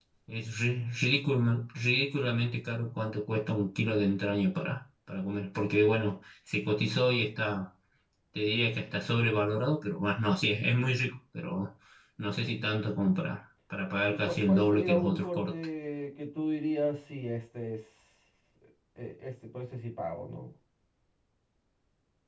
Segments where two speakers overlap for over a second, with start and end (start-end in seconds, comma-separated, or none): 14.1-15.5